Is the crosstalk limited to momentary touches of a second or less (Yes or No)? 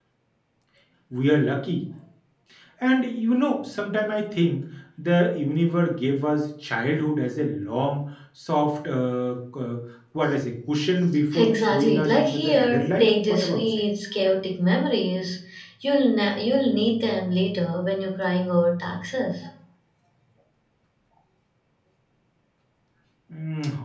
No